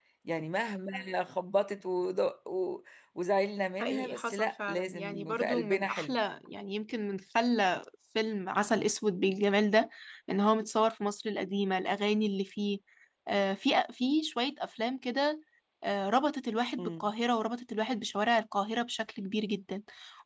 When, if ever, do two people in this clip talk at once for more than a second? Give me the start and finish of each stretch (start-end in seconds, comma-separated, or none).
3.8-6.1